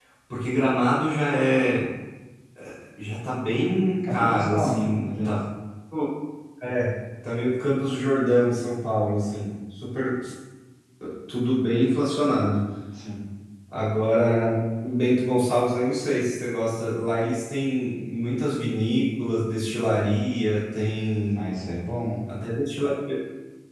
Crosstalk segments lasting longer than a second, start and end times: 4.1-5.4

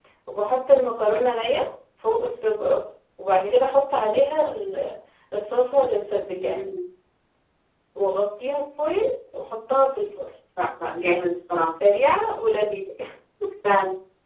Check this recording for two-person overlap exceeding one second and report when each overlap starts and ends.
none

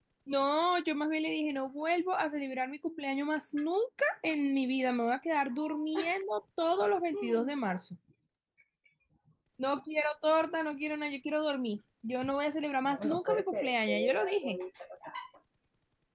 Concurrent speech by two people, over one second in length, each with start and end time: 12.8-14.6

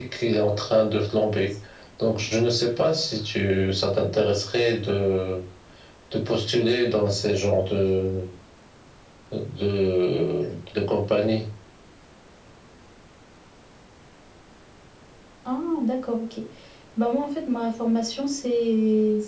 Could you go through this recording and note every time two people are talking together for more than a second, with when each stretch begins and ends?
none

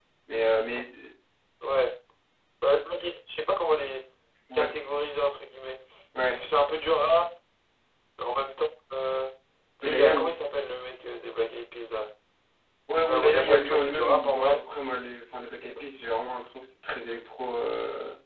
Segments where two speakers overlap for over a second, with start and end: 13.1-14.6

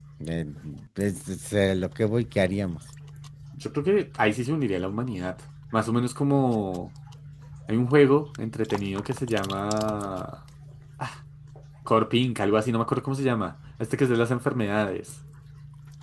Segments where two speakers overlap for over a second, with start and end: none

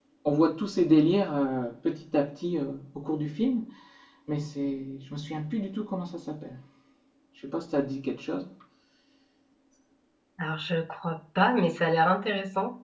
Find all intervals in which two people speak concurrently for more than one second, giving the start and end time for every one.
none

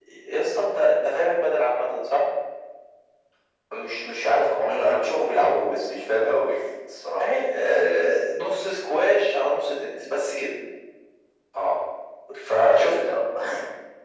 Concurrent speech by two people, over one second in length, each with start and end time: none

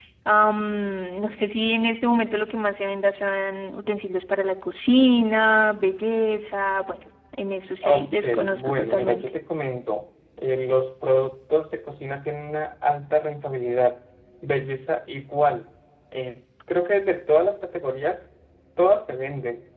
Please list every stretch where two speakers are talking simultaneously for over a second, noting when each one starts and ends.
7.8-9.3

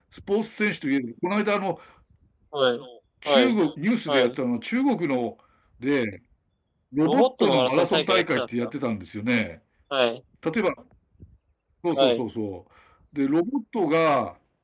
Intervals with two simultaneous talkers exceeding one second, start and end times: 7.0-8.7

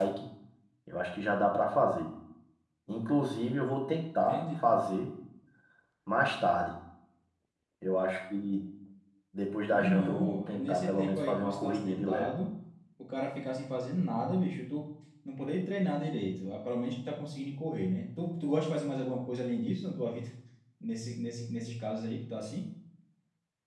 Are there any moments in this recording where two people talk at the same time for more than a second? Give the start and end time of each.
9.7-12.3

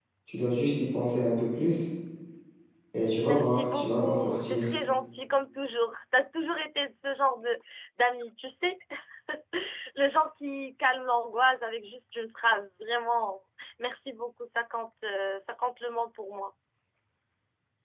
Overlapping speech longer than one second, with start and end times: 3.2-4.7

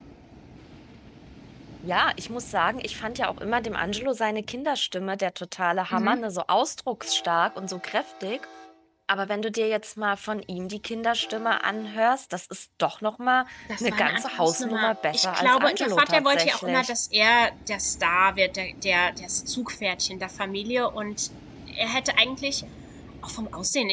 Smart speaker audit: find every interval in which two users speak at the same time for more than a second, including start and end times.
13.8-16.9

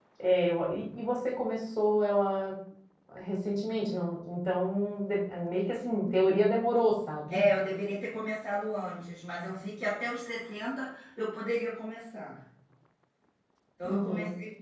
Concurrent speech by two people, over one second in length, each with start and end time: none

